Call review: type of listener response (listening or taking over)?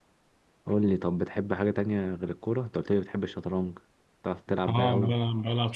taking over